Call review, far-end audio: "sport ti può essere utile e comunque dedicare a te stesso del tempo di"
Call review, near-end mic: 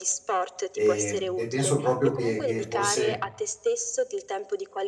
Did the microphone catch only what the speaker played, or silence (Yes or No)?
No